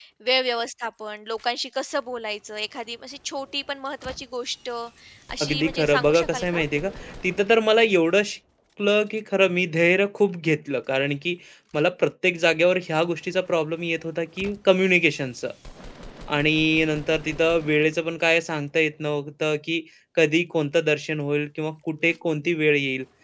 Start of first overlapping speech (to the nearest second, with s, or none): 5 s